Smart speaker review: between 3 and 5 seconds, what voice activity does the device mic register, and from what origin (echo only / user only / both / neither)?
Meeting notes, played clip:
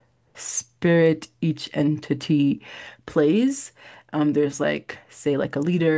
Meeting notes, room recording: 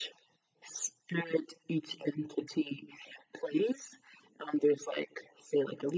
echo only